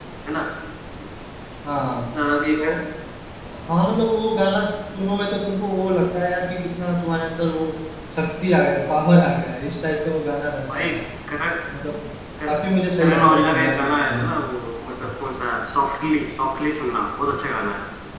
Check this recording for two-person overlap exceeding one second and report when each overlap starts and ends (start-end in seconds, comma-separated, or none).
13.0-14.3